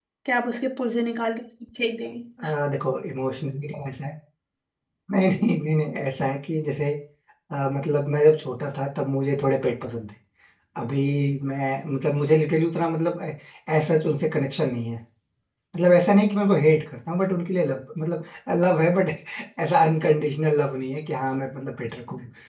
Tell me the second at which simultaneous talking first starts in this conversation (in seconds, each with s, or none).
none